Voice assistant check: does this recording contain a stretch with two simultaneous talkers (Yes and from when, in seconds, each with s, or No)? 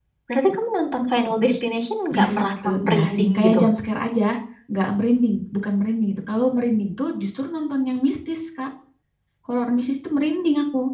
Yes, from 2.1 s